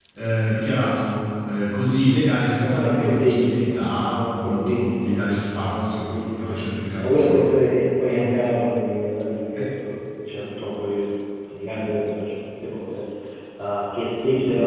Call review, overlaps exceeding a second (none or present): present